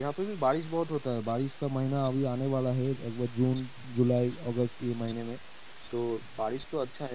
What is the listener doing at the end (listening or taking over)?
listening